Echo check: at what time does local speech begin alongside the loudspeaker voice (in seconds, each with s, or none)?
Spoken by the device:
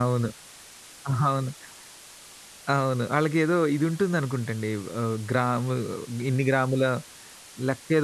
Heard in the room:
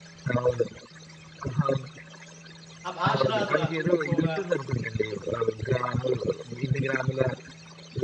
2.9 s